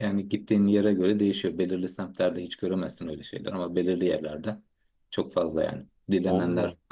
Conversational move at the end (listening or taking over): listening